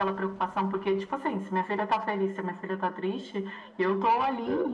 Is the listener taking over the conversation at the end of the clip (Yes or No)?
No